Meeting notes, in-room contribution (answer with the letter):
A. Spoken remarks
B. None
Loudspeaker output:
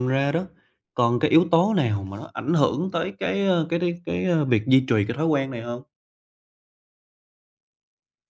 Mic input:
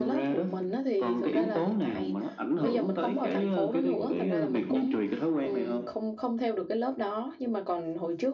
A